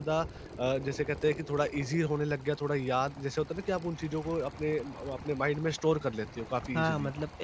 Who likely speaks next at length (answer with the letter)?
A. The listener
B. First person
A